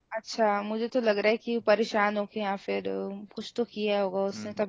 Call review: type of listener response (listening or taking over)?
taking over